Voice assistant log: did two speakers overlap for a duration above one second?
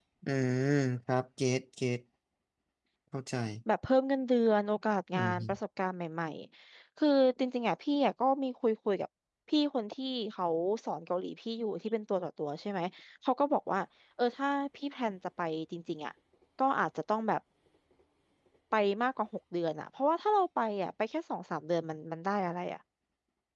No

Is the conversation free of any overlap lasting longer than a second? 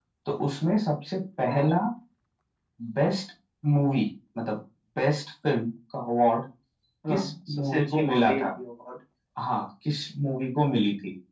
No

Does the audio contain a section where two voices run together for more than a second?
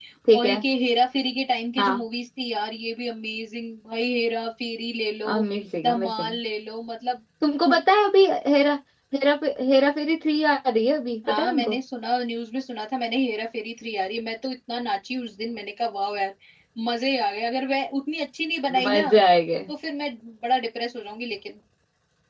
No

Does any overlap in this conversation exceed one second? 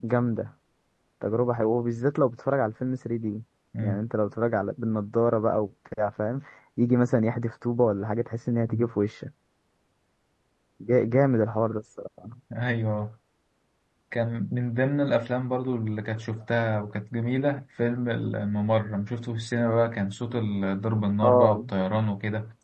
No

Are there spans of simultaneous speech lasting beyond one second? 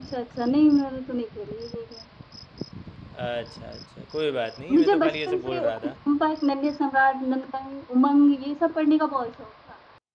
Yes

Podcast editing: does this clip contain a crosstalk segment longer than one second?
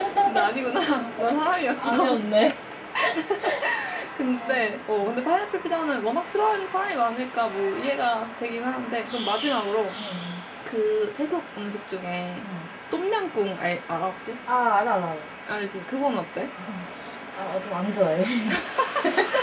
No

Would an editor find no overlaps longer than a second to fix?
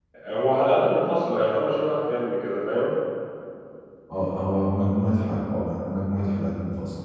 Yes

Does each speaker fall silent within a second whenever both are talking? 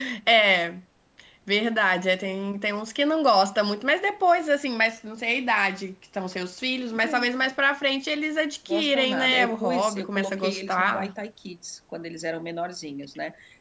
No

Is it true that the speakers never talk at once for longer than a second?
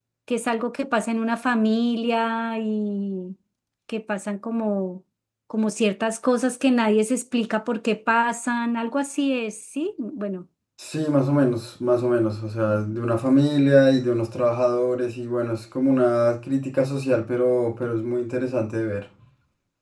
Yes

